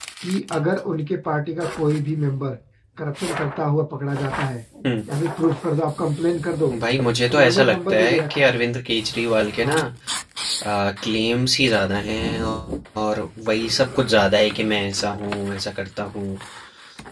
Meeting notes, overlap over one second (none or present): present